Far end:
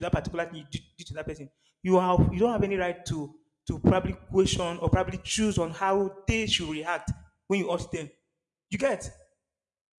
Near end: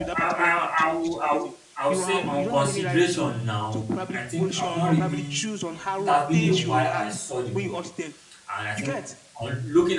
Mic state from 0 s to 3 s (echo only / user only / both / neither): both